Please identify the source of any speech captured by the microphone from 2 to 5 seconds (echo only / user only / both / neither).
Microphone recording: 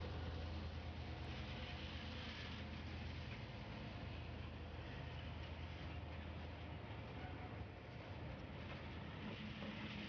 neither